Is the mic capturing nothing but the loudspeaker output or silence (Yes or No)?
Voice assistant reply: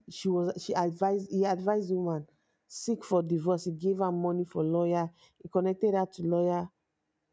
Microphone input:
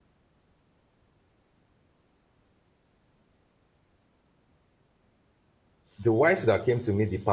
No